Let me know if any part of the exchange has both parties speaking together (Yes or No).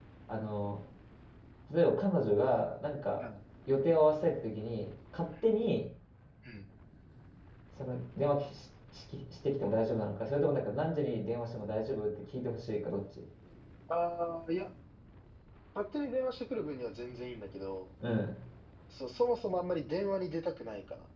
No